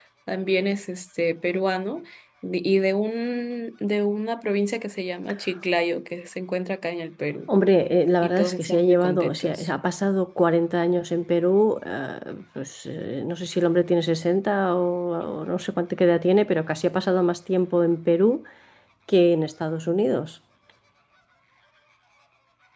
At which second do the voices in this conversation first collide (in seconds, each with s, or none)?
8.2 s